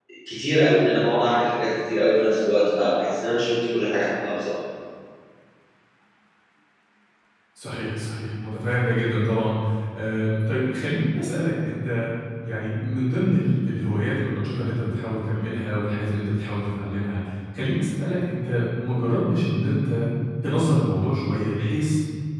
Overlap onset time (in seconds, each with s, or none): none